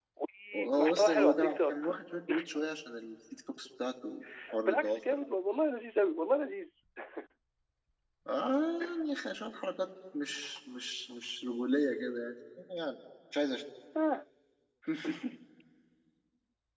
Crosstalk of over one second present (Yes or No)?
Yes